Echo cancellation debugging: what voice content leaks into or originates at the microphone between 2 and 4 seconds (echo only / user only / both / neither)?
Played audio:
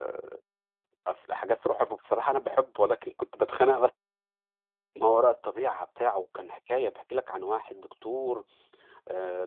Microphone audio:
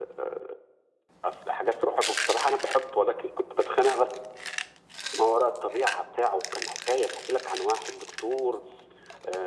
echo only